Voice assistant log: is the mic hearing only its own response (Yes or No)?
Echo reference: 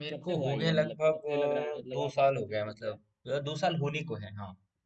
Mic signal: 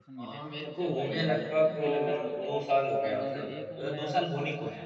No